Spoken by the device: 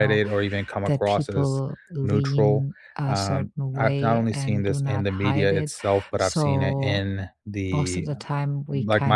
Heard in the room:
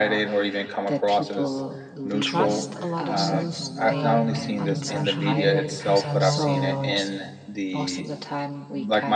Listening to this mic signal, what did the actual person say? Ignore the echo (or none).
trust a lot of news um, on social media because I know, you know, it's